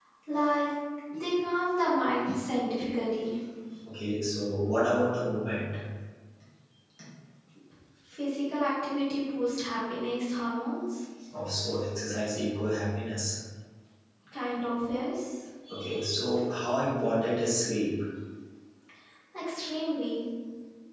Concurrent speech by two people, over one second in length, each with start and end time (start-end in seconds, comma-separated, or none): none